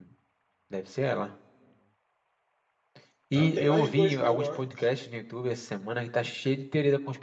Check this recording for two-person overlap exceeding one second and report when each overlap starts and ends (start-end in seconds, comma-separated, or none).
3.4-4.7